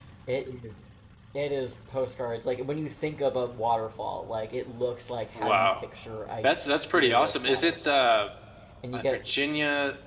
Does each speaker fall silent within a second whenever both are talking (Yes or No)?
No